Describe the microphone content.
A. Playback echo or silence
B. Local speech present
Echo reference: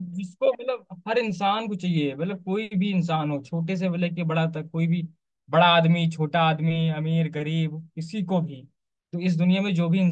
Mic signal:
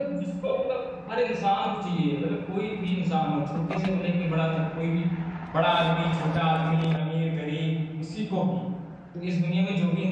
A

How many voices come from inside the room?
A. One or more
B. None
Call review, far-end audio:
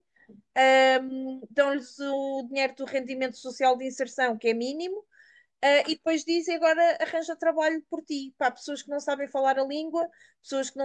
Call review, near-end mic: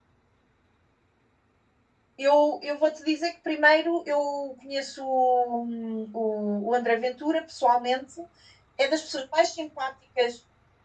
A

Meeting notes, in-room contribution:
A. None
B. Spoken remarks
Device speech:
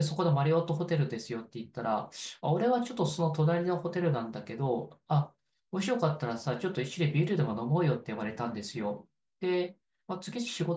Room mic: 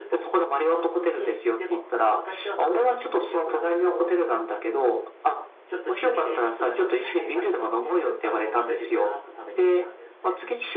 B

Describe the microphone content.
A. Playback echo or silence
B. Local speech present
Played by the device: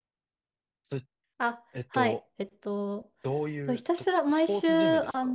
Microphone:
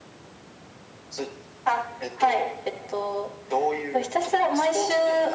A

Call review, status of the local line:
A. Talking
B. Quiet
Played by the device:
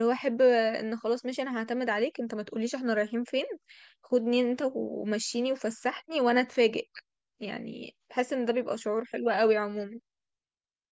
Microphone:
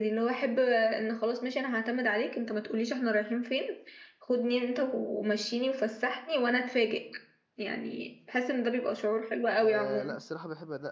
A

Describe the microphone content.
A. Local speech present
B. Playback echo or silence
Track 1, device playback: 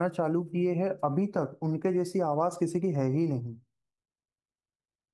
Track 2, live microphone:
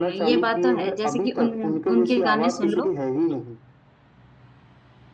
A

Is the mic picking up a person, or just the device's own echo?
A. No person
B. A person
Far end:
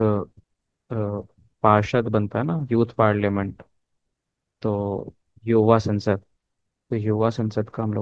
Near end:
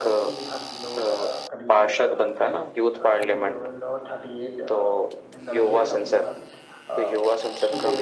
B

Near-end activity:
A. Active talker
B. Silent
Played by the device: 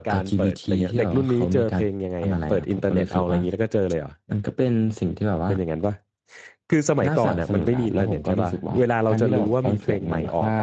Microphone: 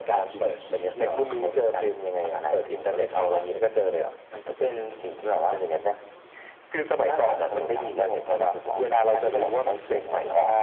B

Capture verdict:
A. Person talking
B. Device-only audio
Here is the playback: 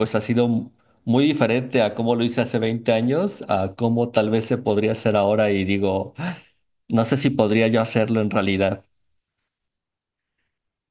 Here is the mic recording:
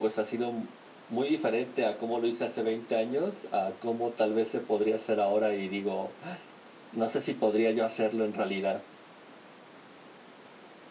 B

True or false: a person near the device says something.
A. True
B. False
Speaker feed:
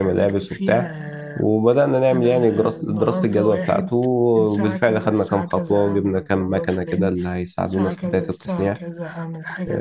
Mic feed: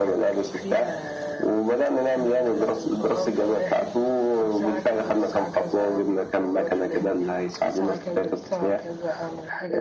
B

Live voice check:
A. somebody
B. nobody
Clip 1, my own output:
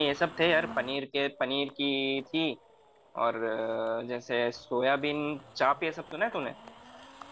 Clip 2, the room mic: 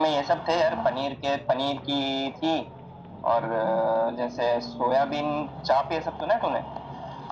B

